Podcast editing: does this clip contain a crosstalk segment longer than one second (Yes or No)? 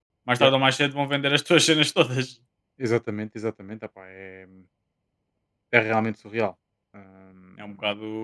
No